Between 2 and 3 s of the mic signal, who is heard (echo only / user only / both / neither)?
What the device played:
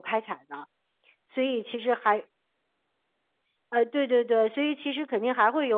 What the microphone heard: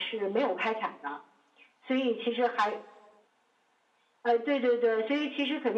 echo only